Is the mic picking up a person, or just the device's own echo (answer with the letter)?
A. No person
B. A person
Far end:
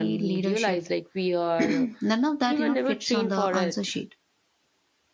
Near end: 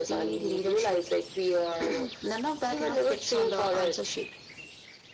A